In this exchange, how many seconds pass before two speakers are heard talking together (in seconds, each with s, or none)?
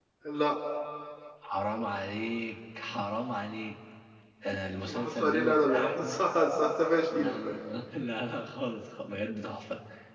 4.8 s